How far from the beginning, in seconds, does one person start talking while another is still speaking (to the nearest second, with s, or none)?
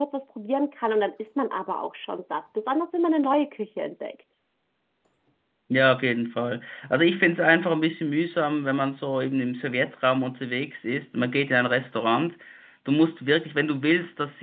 none